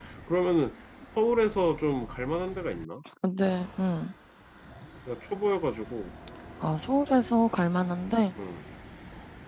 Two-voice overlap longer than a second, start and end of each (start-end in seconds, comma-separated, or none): none